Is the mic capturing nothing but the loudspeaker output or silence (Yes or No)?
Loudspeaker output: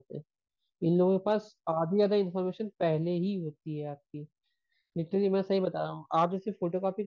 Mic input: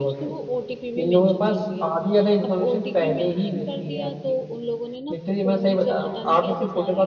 No